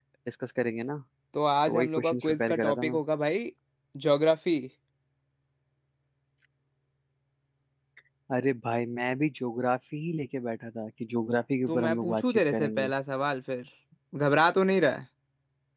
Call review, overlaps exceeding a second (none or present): present